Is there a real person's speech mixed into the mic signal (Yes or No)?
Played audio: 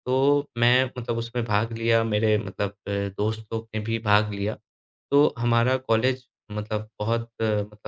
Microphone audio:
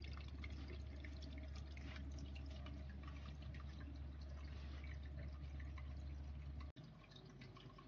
No